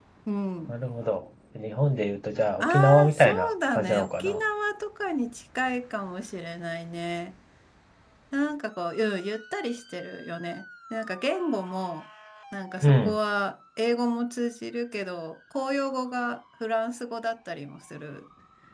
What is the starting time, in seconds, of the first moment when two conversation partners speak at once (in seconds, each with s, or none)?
2.6 s